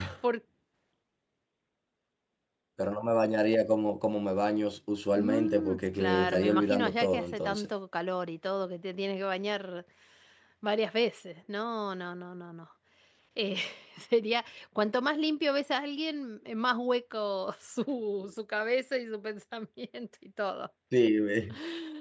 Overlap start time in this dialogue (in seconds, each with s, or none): 5.1 s